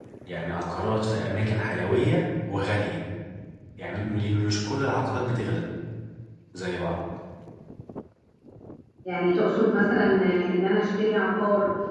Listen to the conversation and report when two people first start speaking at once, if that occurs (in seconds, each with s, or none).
none